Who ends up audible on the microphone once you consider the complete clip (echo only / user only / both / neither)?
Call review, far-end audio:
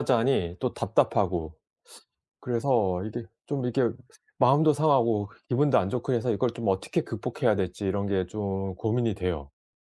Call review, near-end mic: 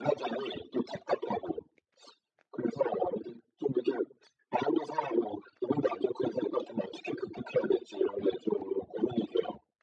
echo only